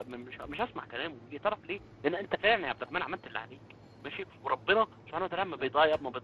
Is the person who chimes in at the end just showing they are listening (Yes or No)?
Yes